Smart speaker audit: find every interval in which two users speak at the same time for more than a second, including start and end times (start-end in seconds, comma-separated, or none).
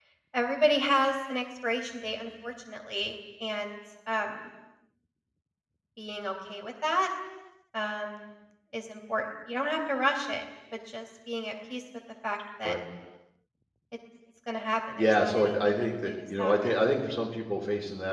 15.0-16.8